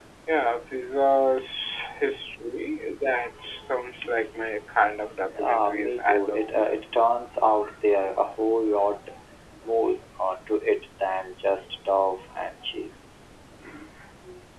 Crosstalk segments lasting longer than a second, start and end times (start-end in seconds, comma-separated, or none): 5.4-6.7